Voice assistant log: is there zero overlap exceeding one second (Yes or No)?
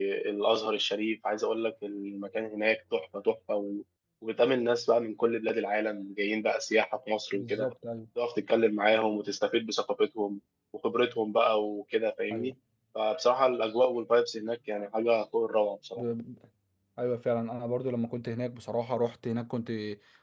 Yes